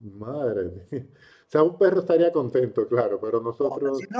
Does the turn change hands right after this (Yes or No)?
Yes